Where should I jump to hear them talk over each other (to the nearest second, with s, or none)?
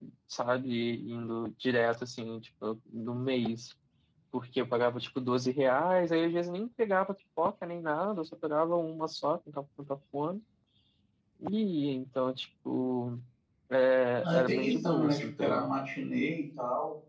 14 s